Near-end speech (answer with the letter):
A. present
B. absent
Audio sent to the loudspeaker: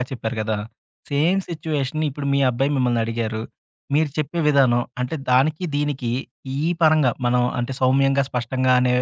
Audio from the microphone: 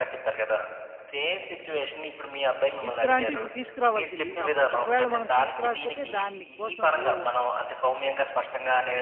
A